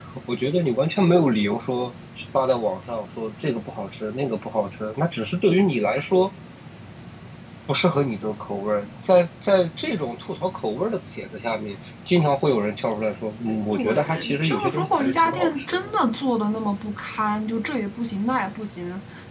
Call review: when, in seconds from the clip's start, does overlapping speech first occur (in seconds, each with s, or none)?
13.7 s